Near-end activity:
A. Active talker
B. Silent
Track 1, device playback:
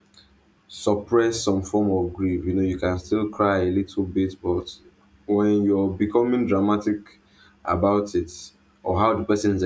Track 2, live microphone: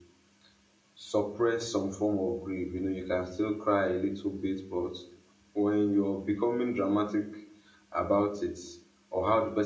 B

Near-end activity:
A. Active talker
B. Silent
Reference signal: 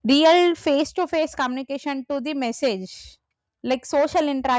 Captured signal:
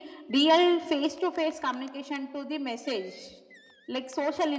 B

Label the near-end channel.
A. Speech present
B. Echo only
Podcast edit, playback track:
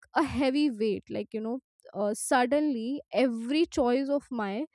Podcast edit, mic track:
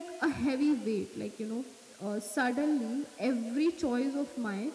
B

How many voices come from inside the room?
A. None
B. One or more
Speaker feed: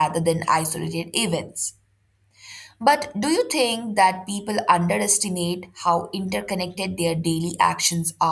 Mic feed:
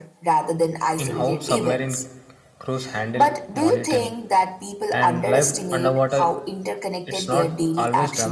B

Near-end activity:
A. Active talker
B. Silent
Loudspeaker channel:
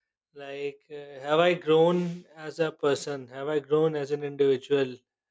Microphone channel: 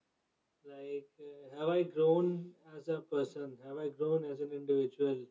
B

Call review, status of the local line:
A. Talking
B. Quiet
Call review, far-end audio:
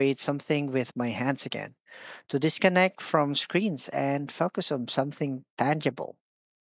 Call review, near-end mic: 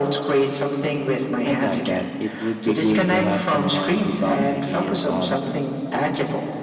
A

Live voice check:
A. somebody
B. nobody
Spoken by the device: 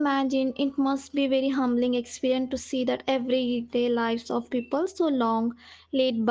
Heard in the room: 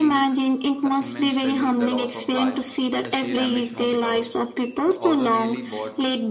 A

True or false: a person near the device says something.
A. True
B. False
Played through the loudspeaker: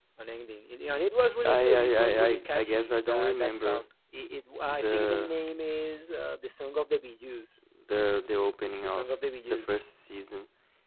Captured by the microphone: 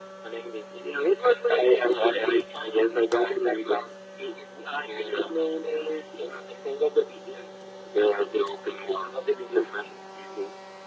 B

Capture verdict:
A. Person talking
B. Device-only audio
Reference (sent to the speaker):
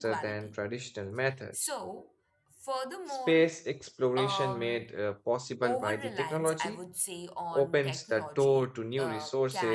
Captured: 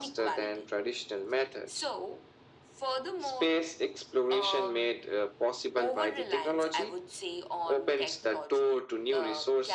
B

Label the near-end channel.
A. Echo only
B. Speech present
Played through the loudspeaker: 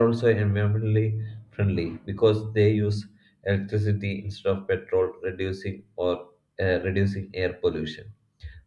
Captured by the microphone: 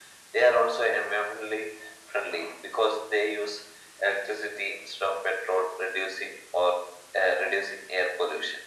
A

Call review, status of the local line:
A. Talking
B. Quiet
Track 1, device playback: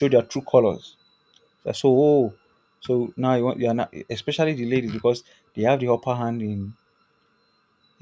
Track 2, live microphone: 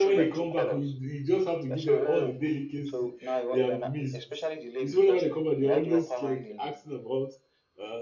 A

